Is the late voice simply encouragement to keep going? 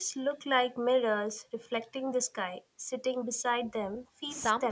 No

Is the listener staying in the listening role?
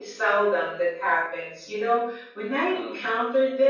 Yes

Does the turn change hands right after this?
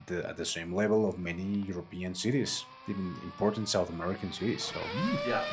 Yes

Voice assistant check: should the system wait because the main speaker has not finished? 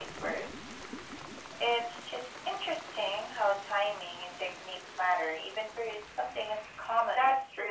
No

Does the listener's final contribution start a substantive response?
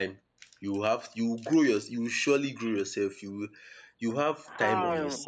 Yes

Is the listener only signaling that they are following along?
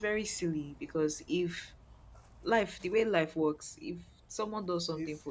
Yes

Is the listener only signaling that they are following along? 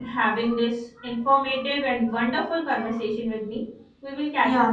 No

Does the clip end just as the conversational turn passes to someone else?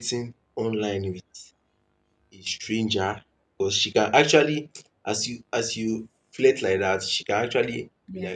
No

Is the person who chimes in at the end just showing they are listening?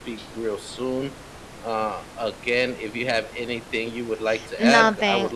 No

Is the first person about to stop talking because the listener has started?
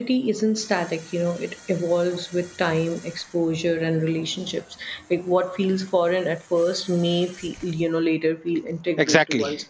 Yes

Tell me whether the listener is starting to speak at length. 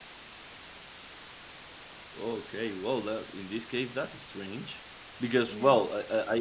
No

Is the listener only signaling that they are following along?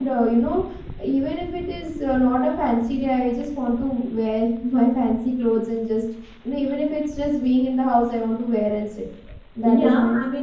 No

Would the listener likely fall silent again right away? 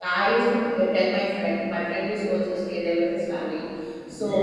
Yes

